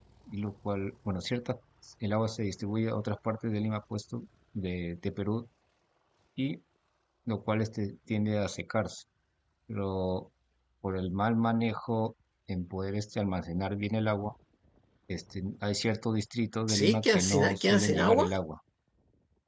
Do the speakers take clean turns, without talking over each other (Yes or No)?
No